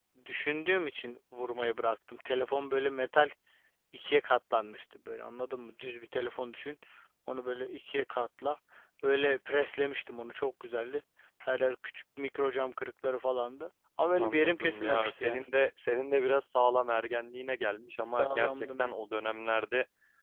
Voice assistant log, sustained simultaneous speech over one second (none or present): present